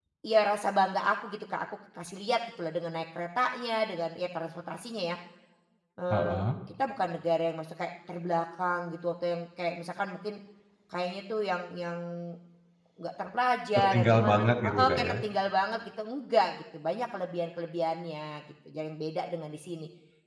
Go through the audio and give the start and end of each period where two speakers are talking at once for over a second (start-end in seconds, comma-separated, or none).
13.8-15.1